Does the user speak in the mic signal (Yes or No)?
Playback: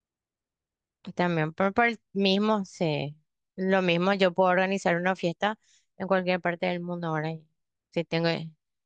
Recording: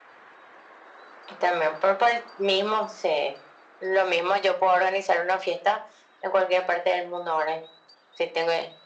No